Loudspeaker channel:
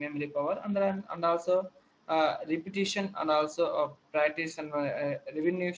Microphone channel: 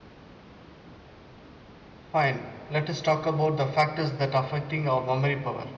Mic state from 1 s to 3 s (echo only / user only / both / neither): user only